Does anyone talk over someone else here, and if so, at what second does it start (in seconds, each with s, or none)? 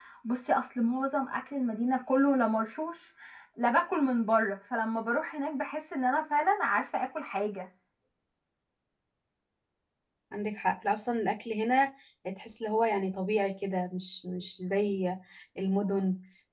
none